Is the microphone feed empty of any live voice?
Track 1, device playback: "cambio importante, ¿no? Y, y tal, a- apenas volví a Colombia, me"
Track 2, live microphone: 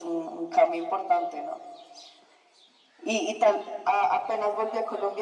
Yes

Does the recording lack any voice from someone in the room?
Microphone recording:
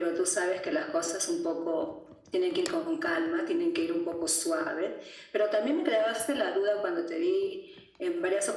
Yes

